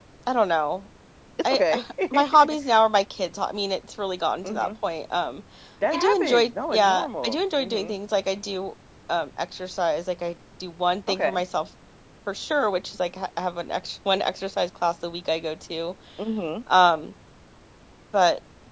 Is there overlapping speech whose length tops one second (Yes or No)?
Yes